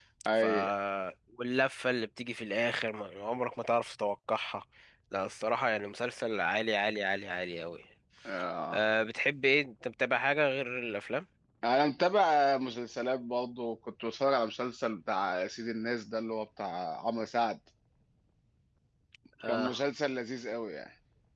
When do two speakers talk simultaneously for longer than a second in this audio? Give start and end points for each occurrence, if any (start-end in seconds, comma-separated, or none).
none